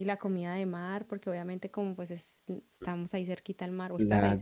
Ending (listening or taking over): taking over